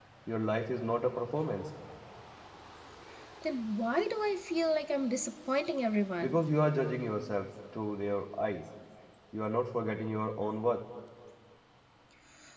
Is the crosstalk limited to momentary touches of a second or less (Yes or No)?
Yes